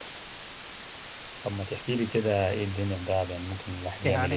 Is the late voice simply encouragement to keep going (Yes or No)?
No